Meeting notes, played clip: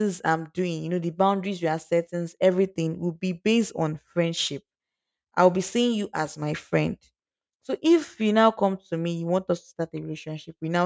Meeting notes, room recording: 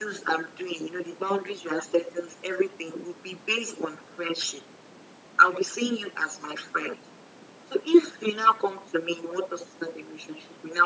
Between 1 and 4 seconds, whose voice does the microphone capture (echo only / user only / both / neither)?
echo only